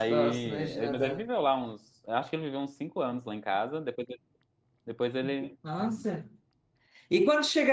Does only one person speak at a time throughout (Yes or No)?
No